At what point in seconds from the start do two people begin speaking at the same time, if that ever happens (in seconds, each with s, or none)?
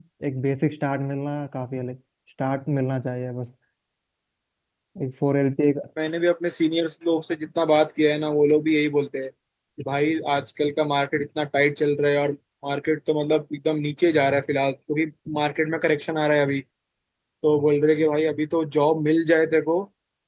none